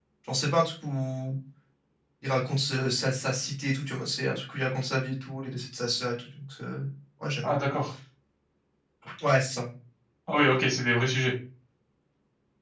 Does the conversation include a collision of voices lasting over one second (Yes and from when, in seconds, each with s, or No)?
No